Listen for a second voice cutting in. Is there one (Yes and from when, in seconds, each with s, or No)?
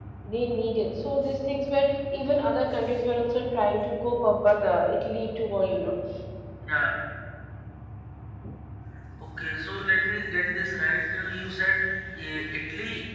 No